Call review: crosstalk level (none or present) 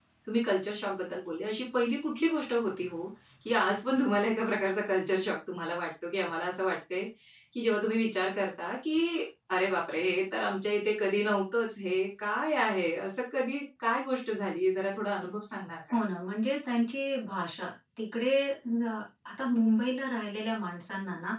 none